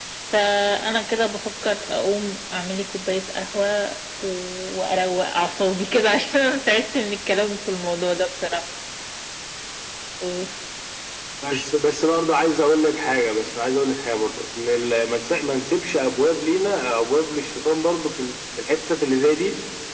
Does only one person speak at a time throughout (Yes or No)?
Yes